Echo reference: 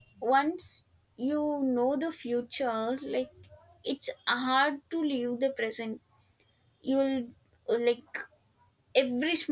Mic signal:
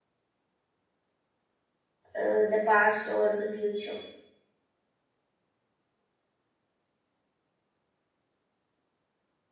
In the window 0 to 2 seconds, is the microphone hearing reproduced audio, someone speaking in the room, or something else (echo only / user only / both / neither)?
neither